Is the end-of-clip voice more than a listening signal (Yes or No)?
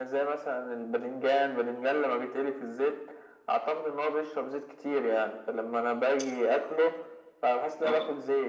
No